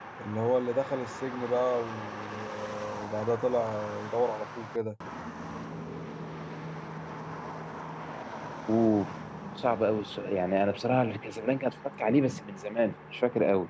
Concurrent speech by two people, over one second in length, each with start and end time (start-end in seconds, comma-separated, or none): none